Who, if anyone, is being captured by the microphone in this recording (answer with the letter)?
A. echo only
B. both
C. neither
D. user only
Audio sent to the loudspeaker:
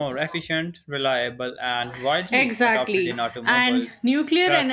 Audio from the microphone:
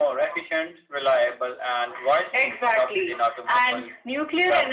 A